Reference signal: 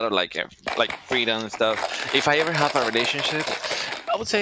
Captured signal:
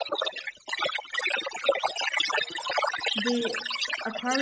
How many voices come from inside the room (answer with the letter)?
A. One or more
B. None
A